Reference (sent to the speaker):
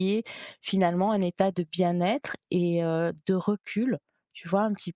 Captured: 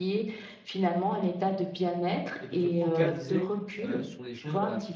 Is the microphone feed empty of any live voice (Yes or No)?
No